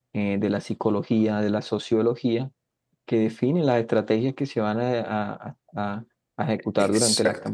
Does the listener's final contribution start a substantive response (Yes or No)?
No